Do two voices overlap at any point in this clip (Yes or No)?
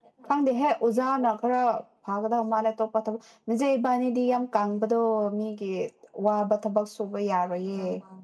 No